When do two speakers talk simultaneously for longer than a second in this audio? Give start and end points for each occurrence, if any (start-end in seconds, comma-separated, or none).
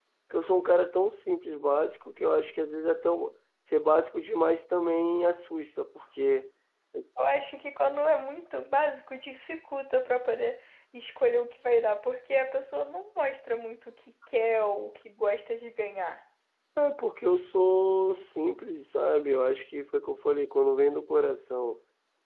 none